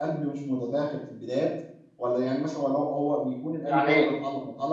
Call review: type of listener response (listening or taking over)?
listening